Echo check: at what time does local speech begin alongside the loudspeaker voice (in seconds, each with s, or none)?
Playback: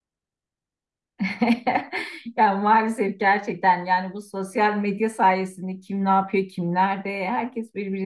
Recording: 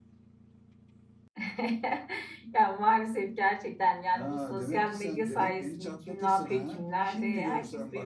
4.1 s